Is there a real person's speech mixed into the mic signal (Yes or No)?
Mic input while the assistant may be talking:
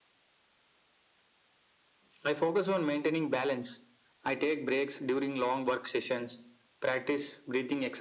No